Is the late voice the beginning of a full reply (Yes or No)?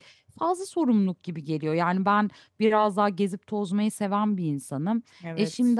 No